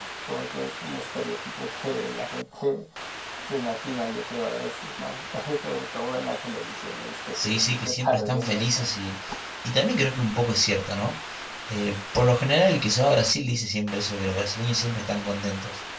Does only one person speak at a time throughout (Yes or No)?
No